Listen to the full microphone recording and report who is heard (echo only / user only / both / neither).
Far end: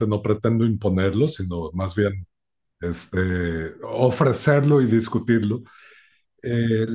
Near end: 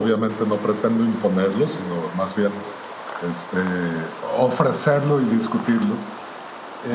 echo only